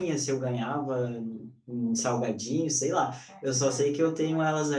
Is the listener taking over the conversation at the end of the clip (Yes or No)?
No